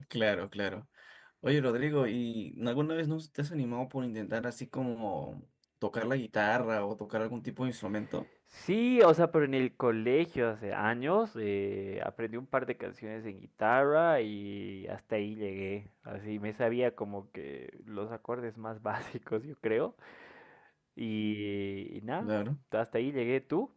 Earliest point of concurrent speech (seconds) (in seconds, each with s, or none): none